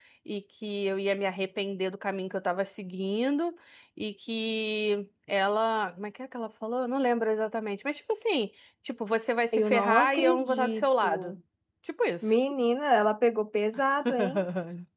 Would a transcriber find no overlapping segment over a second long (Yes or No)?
No